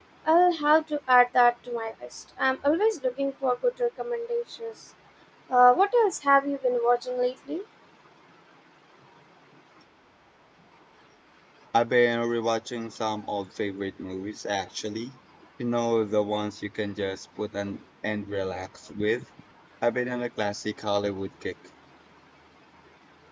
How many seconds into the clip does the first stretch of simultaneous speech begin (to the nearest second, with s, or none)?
none